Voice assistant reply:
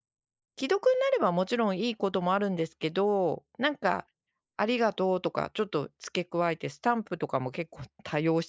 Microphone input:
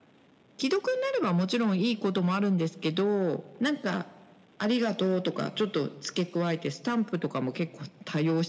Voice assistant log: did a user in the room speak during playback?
No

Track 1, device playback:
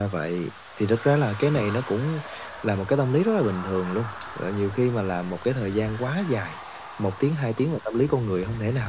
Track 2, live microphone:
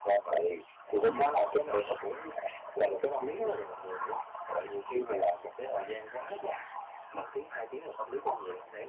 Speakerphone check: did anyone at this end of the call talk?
Yes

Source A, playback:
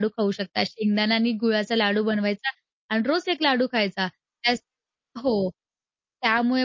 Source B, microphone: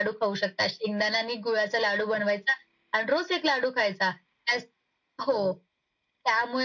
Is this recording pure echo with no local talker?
Yes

